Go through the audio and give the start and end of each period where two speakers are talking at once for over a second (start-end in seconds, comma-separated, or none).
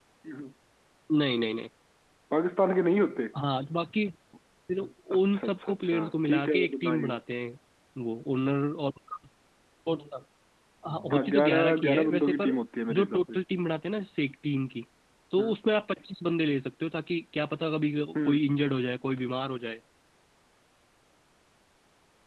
5.1-7.2, 11.1-12.6